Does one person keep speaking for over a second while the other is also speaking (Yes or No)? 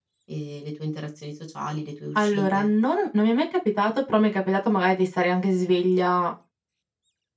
No